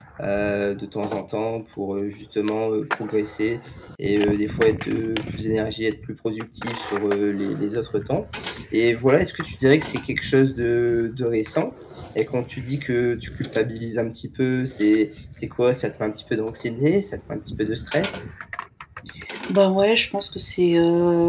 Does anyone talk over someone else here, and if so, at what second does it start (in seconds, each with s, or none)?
none